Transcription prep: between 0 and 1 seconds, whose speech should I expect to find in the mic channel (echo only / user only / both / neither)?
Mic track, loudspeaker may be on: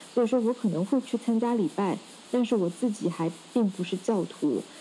echo only